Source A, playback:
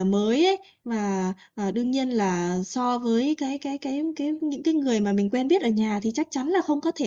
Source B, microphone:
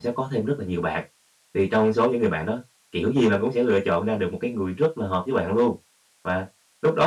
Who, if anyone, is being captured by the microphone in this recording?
user only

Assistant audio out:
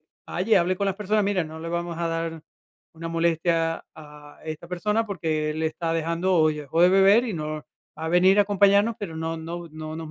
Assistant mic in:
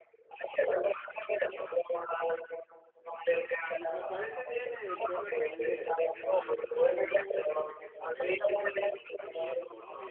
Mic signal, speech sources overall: both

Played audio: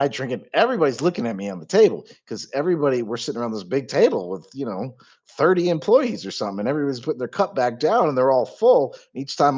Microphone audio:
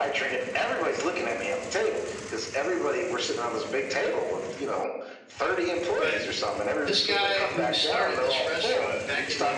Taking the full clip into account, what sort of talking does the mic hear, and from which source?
both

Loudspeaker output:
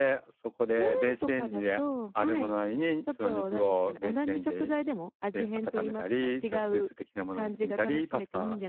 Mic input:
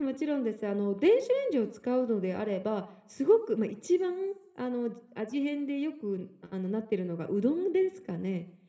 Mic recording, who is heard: user only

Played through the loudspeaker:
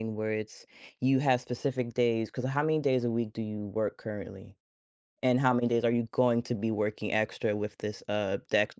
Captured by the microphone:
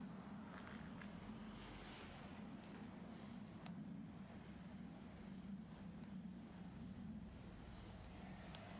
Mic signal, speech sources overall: neither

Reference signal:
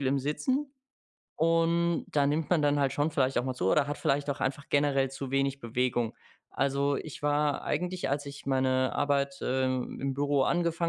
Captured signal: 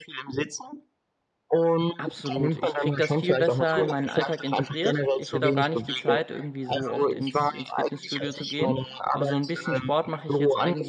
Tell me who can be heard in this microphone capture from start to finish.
both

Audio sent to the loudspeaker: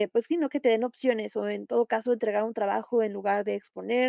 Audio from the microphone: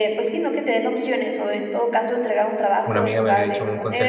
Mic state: both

